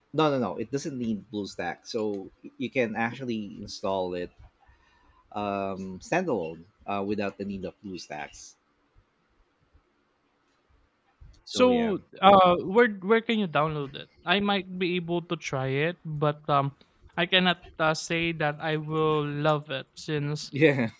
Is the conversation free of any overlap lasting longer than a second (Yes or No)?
Yes